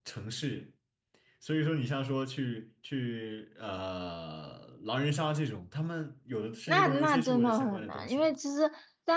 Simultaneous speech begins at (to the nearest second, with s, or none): 7 s